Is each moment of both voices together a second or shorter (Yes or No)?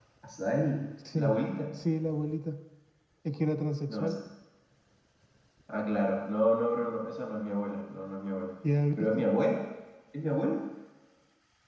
Yes